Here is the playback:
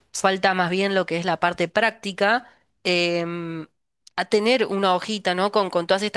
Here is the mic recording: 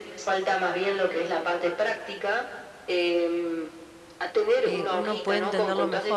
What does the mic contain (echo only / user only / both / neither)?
both